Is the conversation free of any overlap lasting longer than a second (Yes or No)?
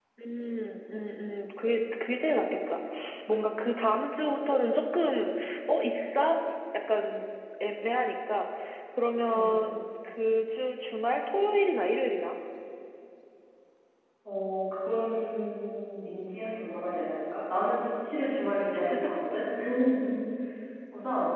Yes